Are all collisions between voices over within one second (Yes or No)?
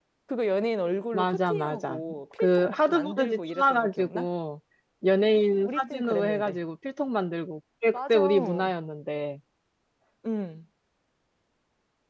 No